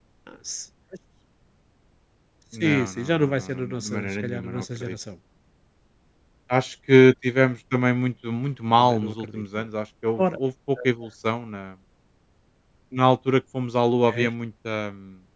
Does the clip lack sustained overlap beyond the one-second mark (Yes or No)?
No